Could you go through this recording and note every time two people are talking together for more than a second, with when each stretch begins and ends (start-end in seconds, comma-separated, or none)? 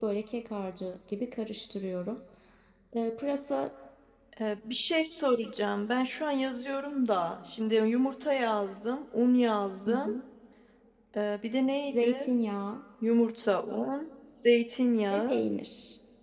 none